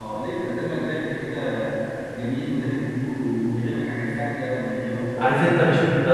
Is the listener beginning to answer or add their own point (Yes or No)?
Yes